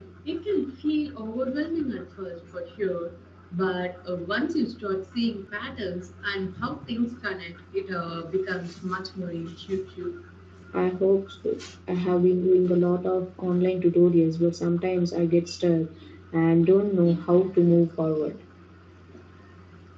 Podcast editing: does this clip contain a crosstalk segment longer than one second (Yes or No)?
No